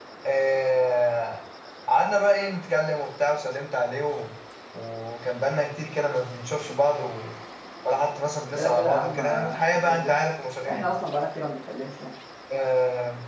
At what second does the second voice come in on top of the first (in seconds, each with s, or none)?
8.6 s